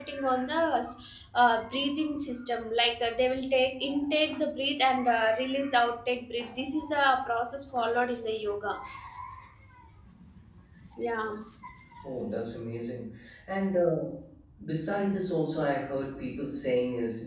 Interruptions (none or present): none